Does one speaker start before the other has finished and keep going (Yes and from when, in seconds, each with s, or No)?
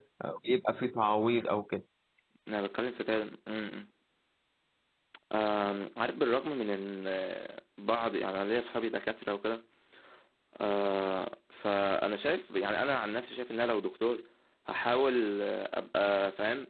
No